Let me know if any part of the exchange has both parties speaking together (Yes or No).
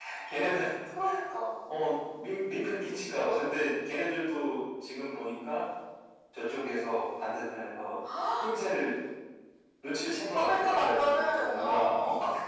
Yes